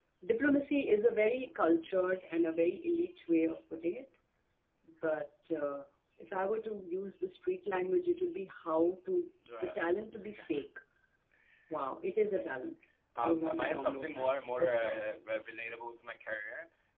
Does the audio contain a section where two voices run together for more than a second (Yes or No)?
Yes